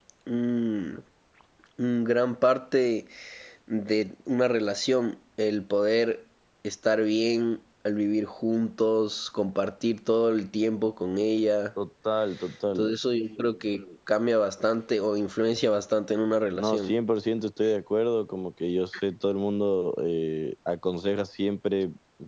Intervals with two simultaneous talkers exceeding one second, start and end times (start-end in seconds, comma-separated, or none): none